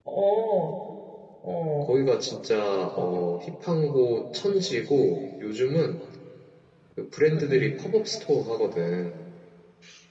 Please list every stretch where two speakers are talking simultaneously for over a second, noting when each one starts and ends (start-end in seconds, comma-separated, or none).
none